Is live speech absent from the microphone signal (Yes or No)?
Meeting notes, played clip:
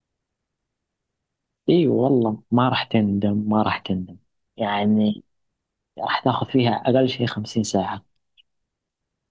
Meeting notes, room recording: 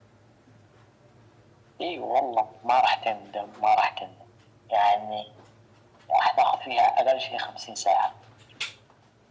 Yes